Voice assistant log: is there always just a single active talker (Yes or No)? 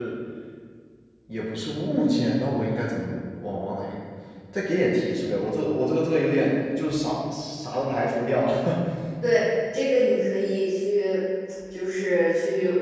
Yes